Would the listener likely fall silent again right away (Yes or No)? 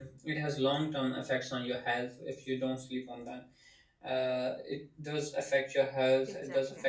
Yes